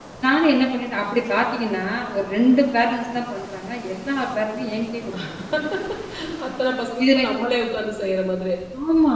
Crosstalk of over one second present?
No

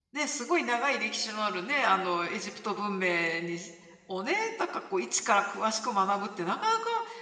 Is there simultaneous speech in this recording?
No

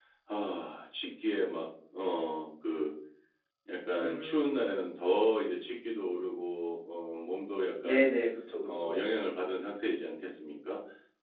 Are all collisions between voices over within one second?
Yes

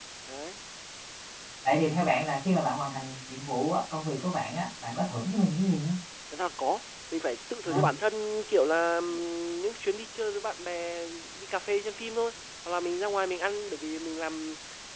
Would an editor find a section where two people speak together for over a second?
No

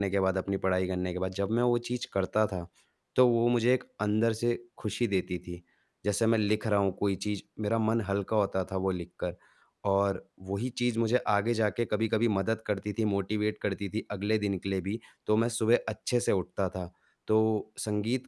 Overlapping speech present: No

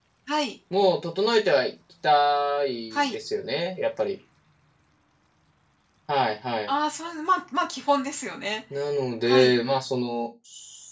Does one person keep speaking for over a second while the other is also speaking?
No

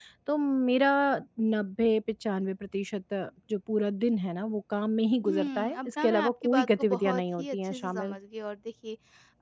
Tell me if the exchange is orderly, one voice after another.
No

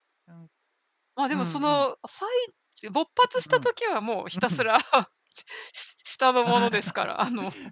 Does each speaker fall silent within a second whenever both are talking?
Yes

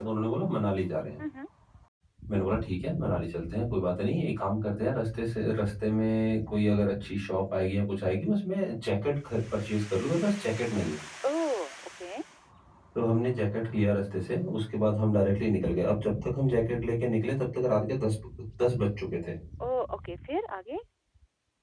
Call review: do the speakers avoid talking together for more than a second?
Yes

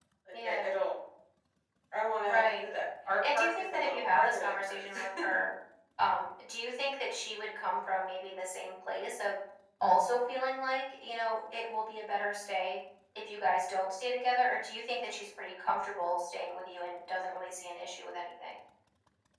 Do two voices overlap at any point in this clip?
Yes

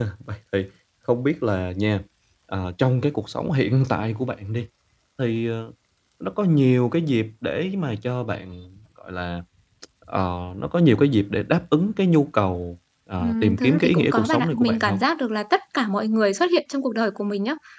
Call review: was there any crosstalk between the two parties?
Yes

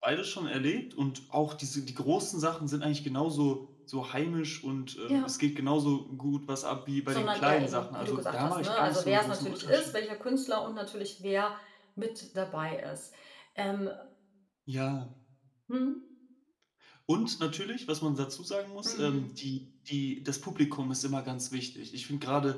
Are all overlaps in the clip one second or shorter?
No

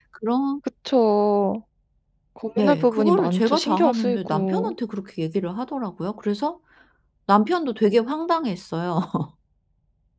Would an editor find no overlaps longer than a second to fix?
No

